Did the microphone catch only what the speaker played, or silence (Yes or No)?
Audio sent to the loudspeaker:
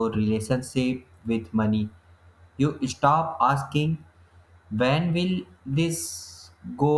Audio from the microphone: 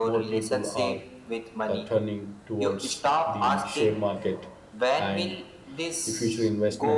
No